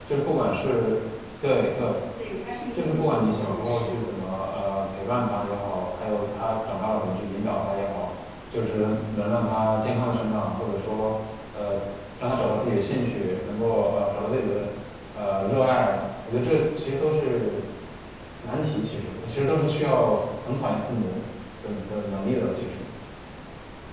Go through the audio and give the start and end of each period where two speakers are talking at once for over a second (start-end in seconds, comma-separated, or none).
2.7-4.0